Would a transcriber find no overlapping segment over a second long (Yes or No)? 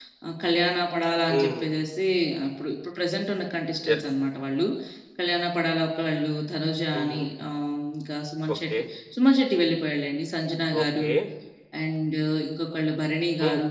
Yes